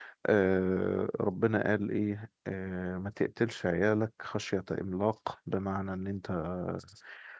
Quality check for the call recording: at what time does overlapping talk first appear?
none

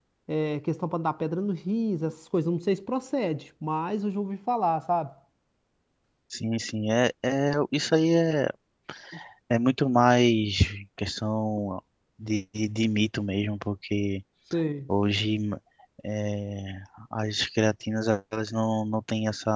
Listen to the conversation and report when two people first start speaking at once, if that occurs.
none

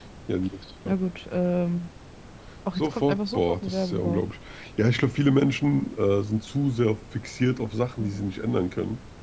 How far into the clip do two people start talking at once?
2.8 s

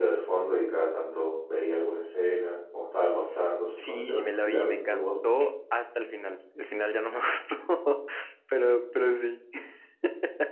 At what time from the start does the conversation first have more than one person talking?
3.7 s

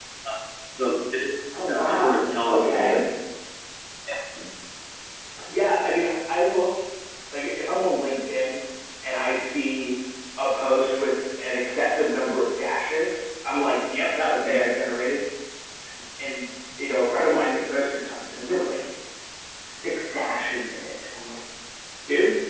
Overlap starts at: 1.7 s

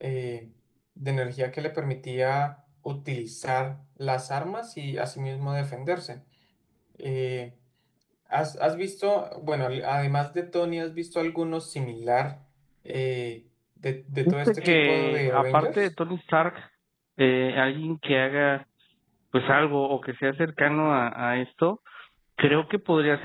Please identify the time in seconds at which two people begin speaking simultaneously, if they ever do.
14.2 s

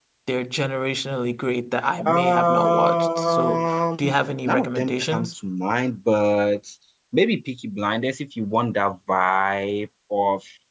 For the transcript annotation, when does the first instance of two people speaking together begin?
2.0 s

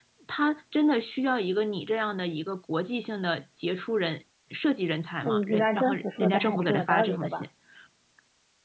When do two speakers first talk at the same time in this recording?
5.2 s

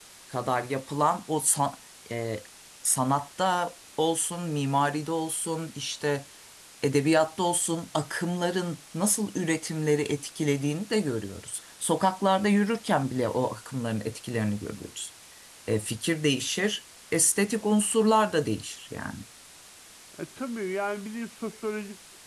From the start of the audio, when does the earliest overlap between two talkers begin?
none

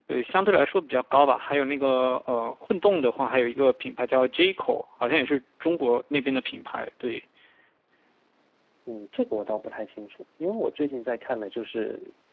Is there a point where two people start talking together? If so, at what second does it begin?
none

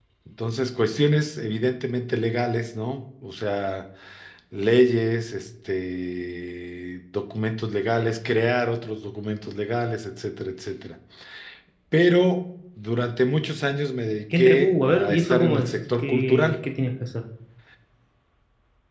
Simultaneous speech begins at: 14.3 s

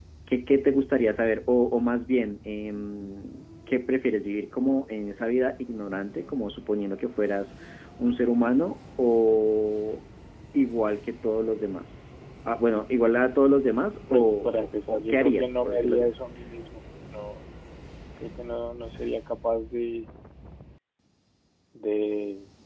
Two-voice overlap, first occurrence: 14.1 s

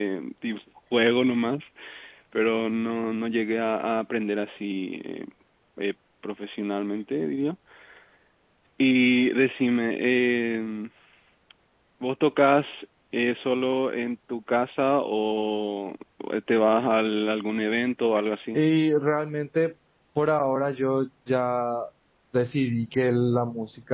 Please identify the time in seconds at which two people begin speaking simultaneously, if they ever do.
none

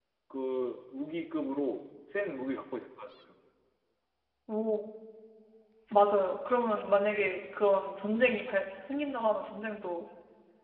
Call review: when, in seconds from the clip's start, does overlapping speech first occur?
none

